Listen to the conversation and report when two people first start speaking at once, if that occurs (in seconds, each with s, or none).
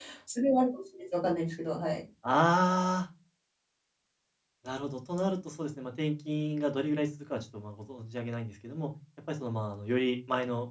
none